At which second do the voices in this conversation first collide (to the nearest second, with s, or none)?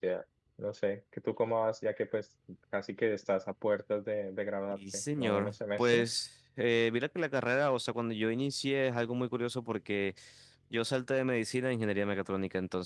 5 s